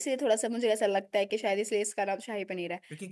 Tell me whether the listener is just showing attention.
No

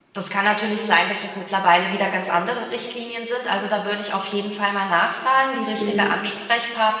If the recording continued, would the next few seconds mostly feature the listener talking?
No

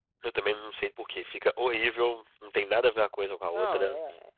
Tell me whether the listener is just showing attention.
No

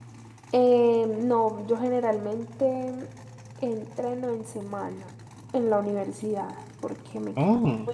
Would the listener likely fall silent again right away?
Yes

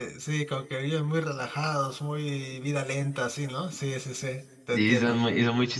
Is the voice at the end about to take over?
Yes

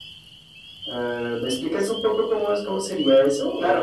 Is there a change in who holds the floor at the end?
Yes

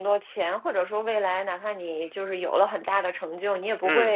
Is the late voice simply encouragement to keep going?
Yes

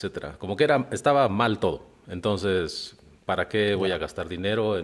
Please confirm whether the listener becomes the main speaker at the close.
No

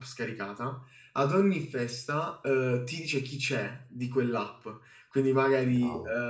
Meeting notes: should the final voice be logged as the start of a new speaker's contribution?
No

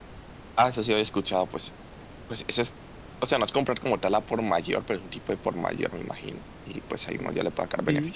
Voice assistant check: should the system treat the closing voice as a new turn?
Yes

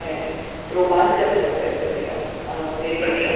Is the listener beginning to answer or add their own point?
Yes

